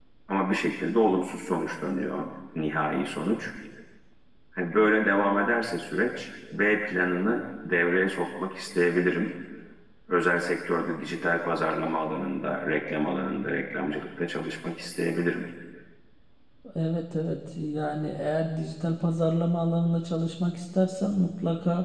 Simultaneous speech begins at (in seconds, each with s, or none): none